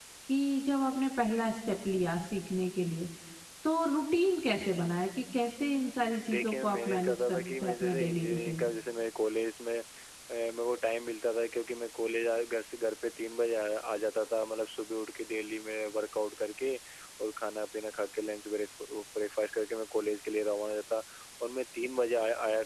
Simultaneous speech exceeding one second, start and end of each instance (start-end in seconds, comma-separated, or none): 6.3-8.7